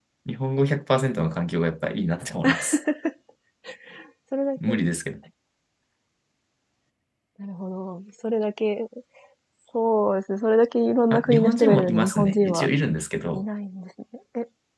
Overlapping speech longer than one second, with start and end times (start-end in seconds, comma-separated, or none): 11.1-12.7